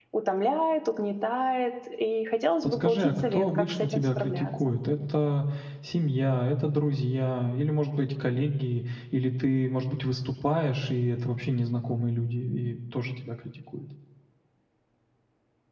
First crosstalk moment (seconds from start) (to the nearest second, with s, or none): 3 s